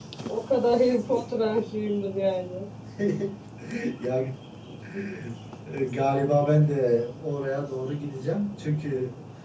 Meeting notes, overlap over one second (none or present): none